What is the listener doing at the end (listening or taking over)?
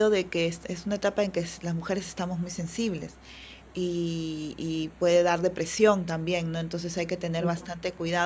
listening